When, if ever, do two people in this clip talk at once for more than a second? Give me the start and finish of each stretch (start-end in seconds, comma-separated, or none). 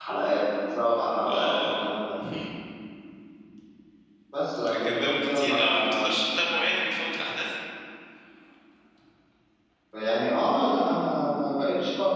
4.7-6.0